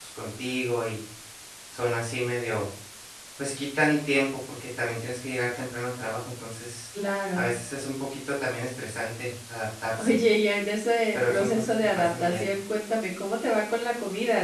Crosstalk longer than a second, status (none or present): present